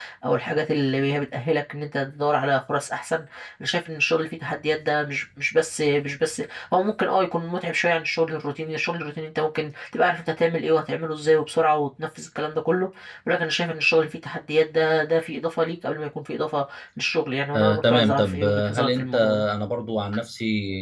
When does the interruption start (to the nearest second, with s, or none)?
18 s